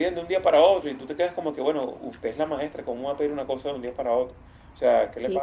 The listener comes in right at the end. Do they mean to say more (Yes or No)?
Yes